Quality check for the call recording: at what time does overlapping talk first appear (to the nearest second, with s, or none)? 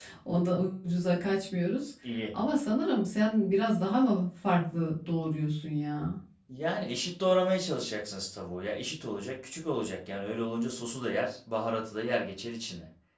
none